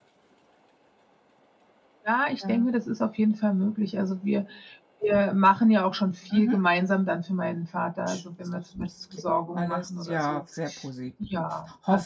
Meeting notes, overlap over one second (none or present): present